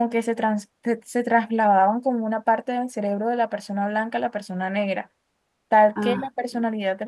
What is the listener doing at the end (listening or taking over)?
listening